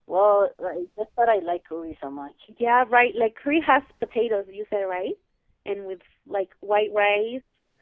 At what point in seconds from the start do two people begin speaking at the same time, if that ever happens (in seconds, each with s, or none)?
none